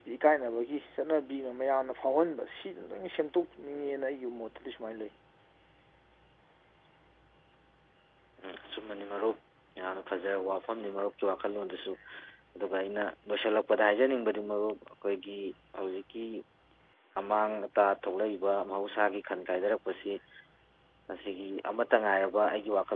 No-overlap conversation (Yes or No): Yes